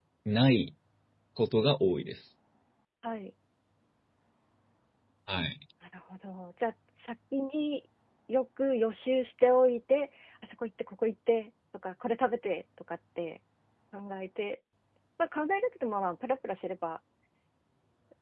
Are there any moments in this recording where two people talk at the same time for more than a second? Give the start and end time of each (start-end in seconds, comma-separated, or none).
none